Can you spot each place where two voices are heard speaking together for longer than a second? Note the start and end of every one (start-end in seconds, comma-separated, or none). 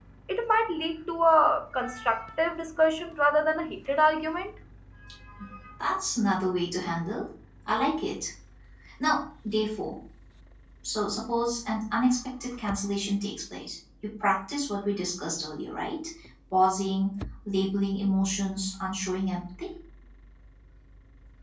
none